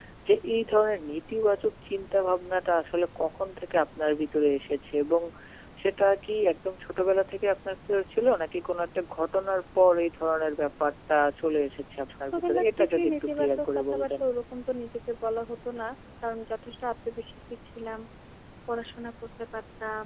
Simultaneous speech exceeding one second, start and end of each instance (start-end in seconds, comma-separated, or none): 12.3-14.2